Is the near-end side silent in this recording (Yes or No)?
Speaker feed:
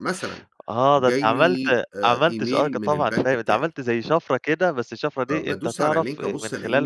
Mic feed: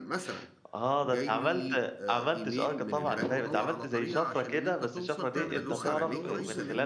No